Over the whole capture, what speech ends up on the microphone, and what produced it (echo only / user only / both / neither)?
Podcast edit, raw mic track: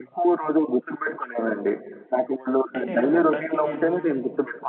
both